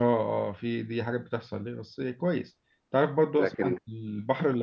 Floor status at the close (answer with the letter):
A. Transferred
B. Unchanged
B